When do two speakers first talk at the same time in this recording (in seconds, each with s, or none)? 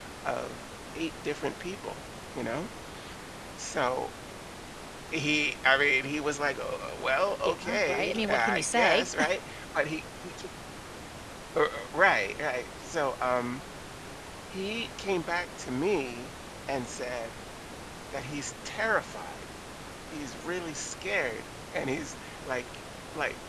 7.4 s